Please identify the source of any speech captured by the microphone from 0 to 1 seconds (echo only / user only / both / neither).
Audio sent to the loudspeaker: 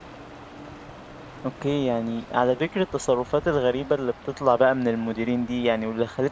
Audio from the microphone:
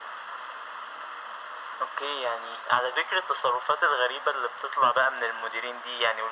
neither